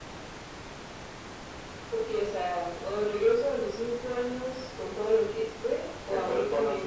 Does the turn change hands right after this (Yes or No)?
Yes